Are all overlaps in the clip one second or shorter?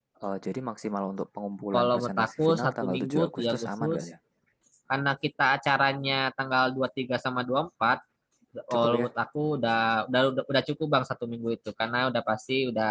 No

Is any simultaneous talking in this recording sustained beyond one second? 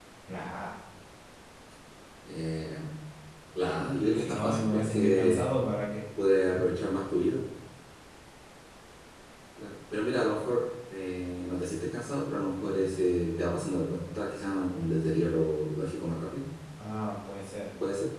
Yes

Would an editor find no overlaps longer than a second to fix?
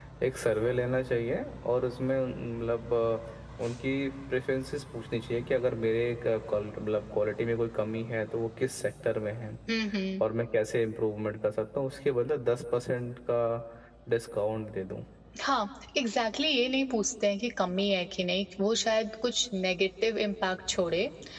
Yes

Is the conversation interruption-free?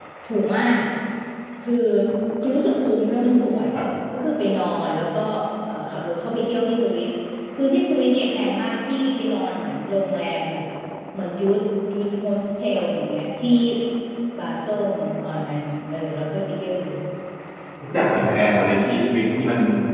Yes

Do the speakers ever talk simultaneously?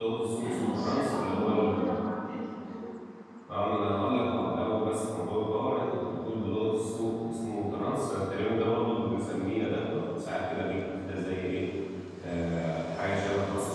Yes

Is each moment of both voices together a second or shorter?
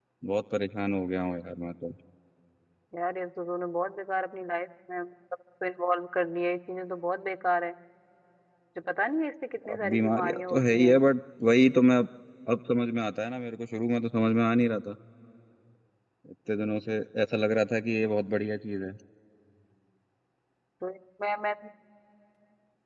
No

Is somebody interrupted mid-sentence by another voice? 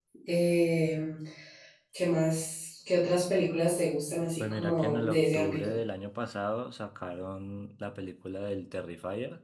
Yes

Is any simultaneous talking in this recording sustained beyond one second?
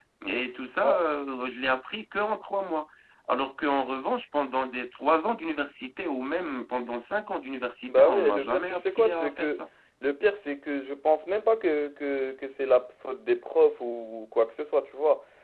Yes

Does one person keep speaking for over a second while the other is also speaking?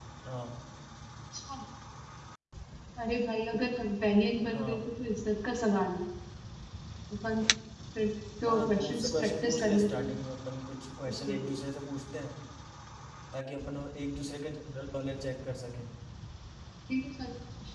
Yes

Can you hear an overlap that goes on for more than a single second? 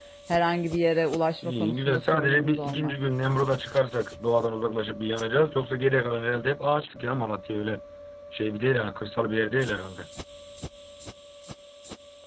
Yes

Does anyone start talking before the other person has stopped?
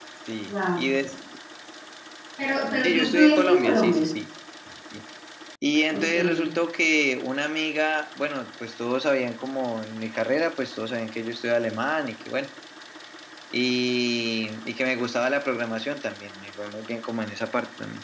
Yes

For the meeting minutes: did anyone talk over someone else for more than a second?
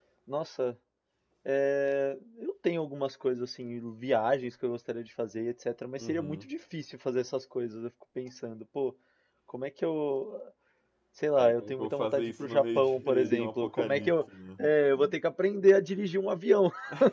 Yes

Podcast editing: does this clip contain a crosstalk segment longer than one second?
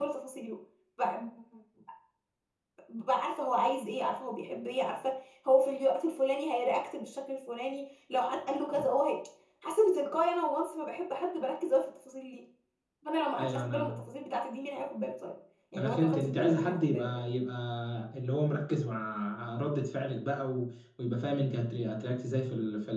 Yes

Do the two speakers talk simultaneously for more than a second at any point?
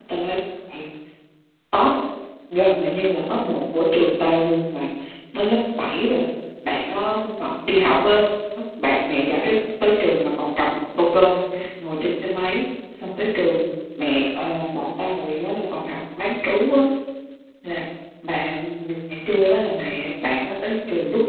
No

